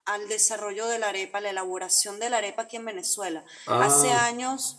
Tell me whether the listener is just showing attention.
Yes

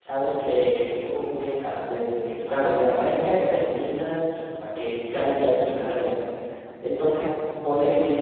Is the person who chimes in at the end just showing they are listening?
Yes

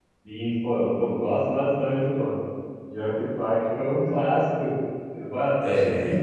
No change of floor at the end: Yes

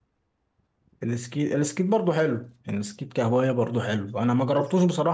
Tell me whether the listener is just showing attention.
Yes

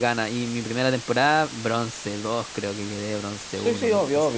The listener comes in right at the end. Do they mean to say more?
Yes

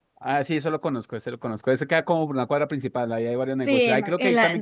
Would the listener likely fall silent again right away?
No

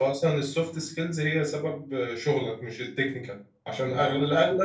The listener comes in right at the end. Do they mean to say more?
No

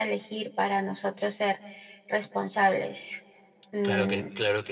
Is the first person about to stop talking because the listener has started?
Yes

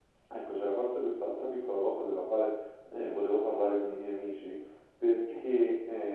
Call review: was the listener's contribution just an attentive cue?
Yes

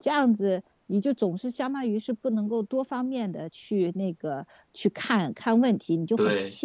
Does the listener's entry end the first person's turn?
No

